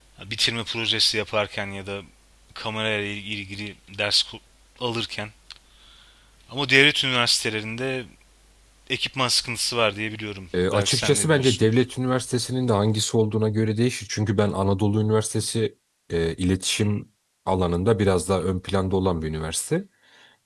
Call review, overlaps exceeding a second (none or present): present